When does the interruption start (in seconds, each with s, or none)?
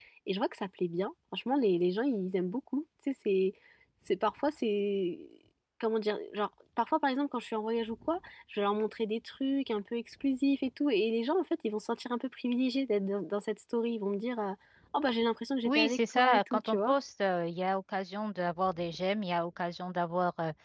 15.7 s